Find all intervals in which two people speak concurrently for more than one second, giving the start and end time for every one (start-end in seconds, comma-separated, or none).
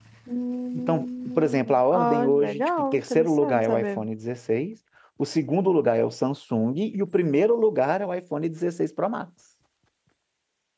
0.7-4.0